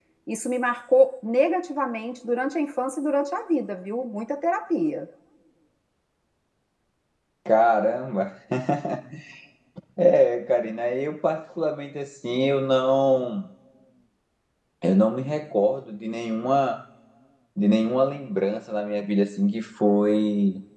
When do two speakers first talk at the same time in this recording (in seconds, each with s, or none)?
none